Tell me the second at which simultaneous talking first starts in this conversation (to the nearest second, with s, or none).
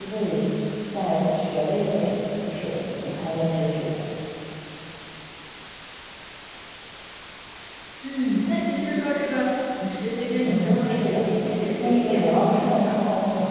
10 s